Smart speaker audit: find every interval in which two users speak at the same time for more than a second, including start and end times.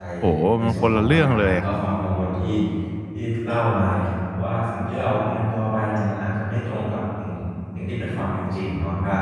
0.6-1.8

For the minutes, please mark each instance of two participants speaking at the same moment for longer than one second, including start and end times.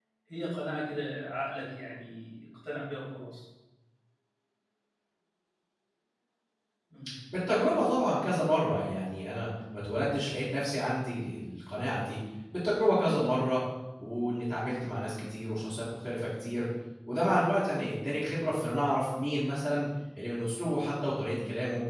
none

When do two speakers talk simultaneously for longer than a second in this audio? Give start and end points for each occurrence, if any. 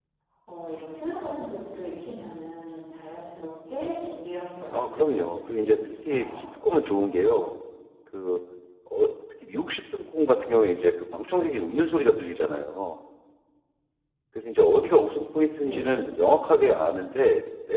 4.8-6.3

